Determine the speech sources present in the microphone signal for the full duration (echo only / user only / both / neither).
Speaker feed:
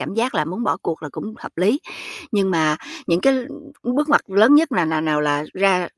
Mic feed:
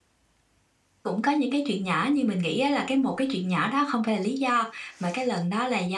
user only